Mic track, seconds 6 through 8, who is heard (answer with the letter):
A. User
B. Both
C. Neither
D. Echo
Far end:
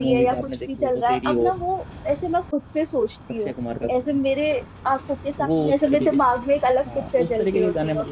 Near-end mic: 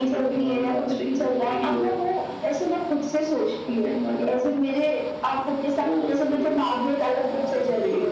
D